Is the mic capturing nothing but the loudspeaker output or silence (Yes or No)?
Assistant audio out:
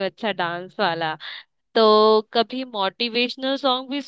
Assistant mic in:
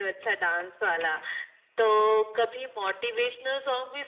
Yes